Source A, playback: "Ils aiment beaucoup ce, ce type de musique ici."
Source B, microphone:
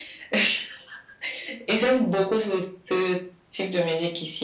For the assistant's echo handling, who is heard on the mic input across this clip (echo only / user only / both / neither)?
echo only